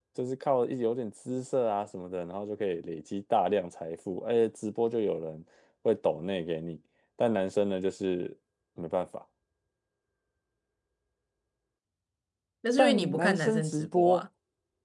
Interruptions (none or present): present